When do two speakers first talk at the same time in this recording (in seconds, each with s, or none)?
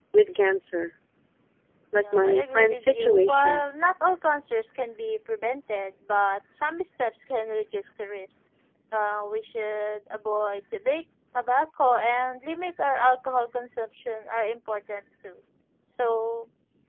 2.0 s